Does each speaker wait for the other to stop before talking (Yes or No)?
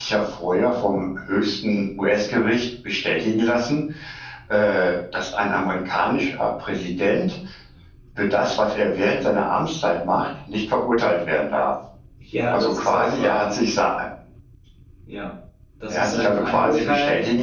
No